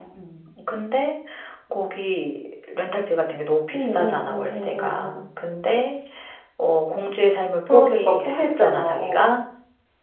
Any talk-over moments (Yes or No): Yes